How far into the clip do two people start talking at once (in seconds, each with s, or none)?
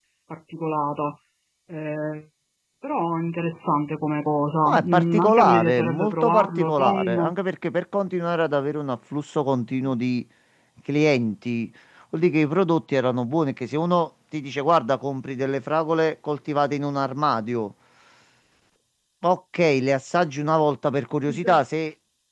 4.7 s